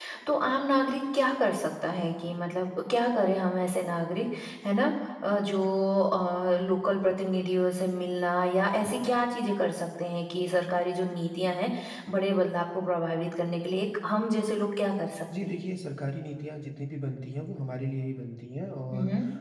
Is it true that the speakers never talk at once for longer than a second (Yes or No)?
Yes